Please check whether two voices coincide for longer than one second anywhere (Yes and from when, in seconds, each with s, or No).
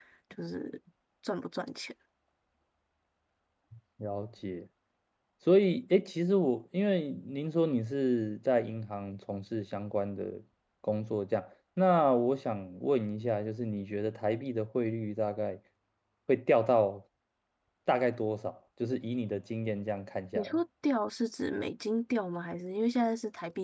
No